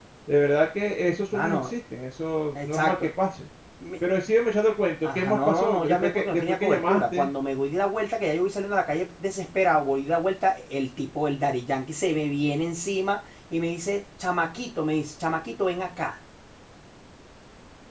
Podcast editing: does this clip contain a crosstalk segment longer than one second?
Yes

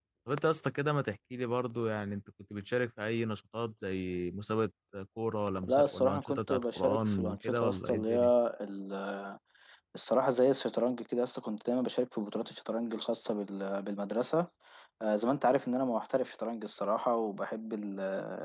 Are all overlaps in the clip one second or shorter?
No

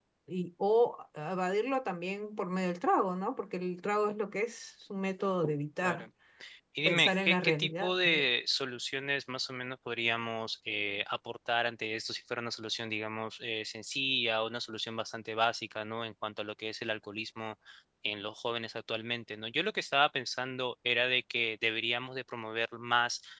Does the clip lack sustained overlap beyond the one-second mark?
No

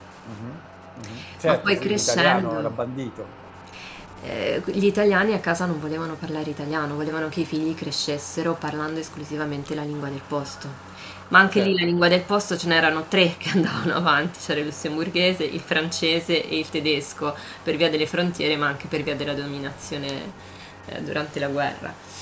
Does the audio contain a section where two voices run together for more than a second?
Yes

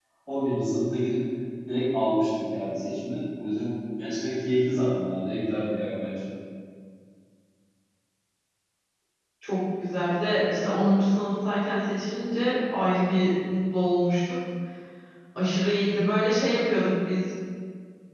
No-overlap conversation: Yes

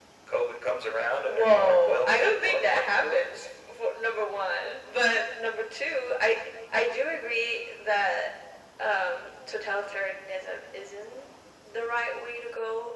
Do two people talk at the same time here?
Yes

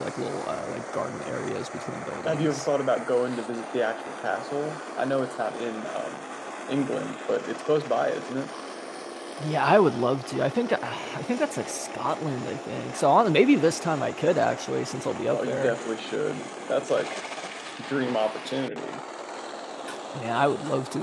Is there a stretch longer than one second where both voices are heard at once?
No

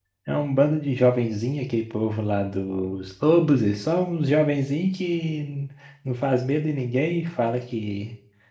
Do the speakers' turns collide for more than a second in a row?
No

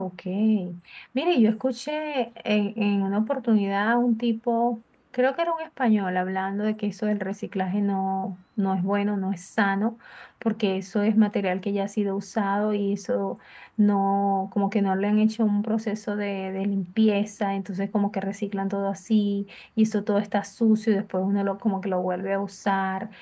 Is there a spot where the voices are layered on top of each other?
No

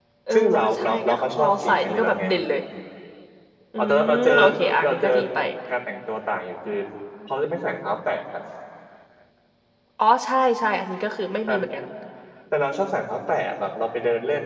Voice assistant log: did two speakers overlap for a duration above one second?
Yes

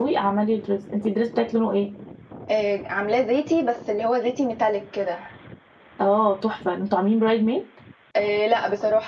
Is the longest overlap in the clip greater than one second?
No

